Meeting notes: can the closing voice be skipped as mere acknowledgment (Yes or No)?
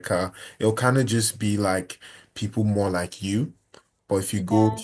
Yes